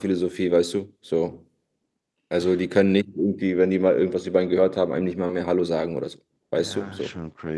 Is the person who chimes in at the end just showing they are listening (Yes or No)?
No